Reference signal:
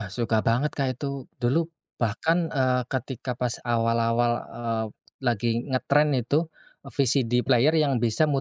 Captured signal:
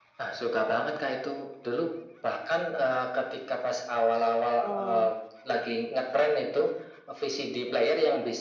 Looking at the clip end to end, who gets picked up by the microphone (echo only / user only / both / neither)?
both